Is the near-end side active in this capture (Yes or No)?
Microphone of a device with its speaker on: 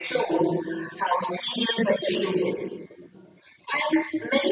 No